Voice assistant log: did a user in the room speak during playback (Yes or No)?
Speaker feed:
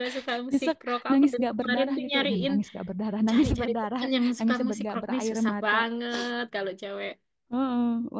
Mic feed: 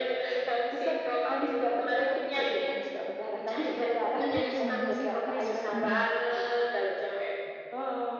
Yes